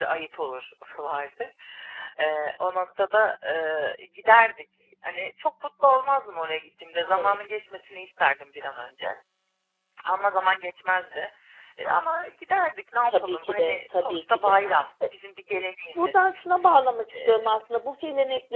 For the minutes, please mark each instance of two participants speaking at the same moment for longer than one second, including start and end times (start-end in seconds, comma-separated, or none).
13.1-14.6